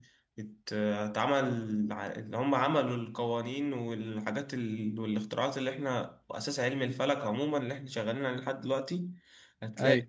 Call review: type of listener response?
listening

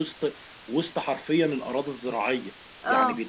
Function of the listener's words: listening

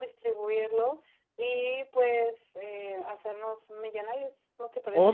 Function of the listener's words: taking over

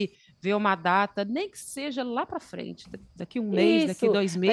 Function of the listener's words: taking over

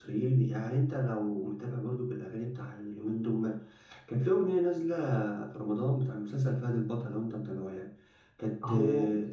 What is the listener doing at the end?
listening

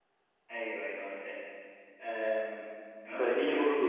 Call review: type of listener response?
listening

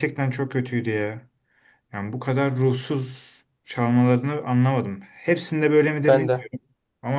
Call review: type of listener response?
listening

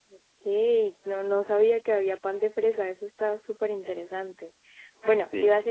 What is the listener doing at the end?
listening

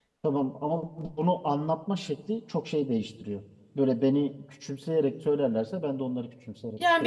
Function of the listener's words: taking over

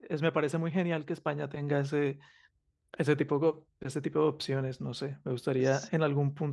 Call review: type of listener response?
listening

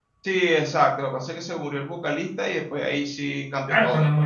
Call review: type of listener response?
taking over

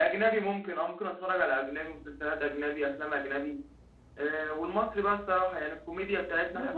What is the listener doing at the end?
taking over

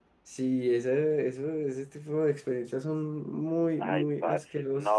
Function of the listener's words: taking over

